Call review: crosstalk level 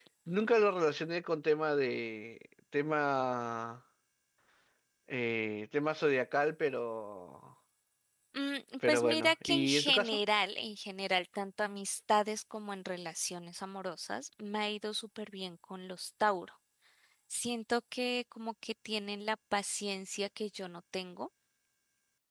present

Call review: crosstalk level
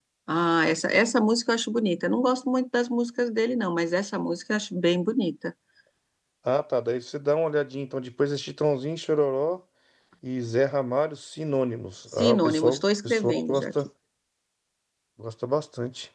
present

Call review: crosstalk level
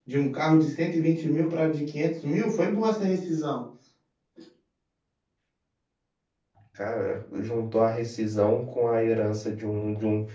none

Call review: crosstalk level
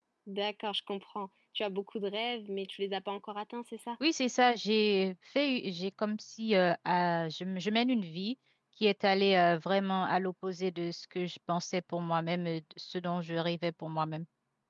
none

